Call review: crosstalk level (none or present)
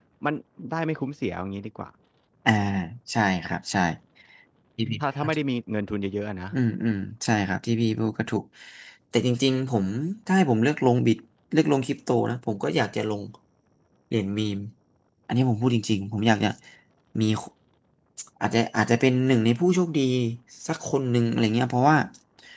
none